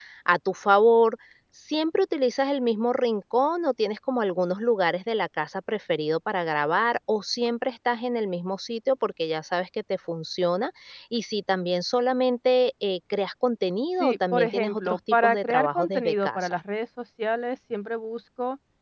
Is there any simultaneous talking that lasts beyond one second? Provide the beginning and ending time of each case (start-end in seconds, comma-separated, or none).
14.0-16.6